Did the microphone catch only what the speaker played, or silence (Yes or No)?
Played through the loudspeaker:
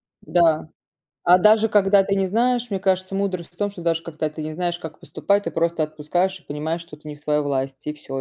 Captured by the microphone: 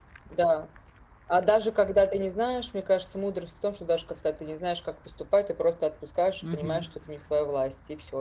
No